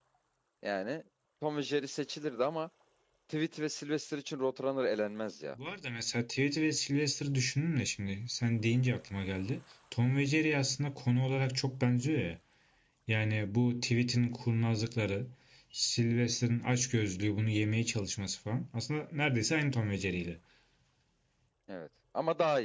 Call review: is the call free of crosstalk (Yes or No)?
Yes